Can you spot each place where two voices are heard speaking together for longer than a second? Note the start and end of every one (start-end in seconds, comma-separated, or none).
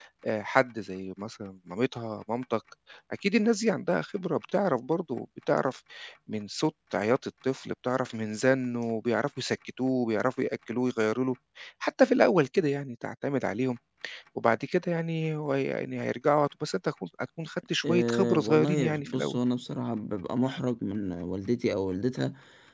17.8-19.4